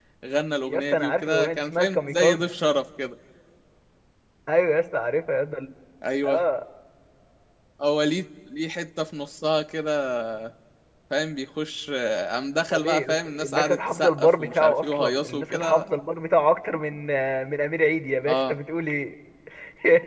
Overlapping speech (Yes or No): Yes